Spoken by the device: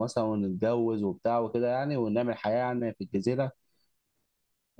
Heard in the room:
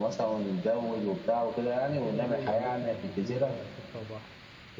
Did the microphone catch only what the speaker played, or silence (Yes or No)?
No